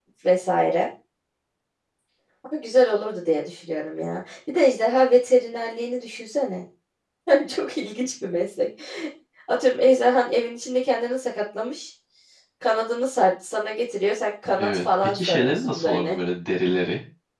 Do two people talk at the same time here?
Yes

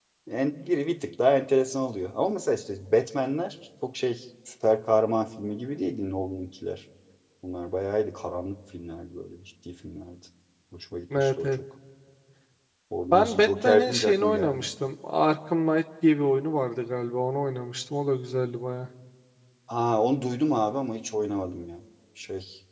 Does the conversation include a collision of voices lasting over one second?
Yes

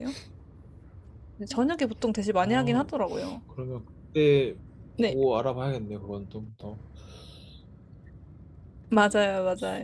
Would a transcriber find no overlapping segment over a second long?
Yes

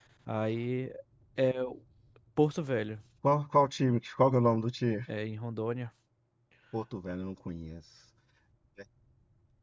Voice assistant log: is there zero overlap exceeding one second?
Yes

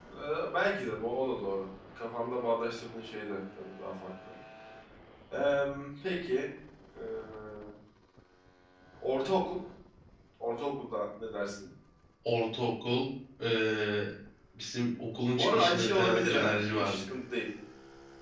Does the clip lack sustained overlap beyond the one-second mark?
No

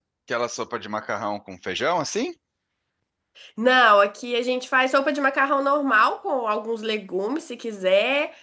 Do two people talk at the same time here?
No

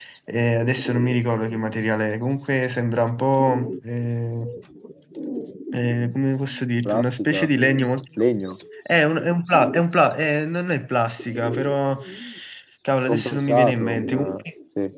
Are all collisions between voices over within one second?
No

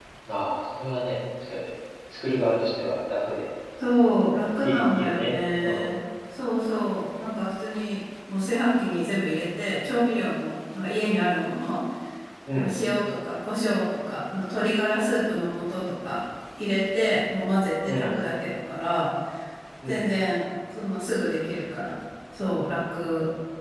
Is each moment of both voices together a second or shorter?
No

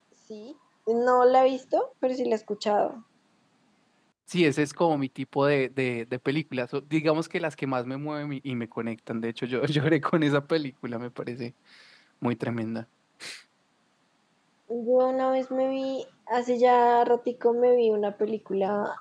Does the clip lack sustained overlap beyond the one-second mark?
Yes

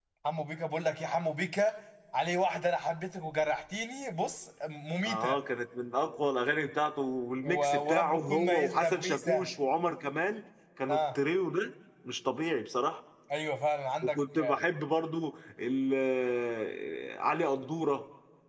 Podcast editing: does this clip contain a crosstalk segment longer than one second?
Yes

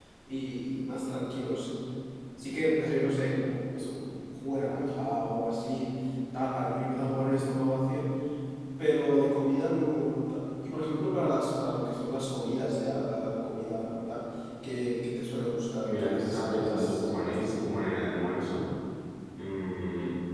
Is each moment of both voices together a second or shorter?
No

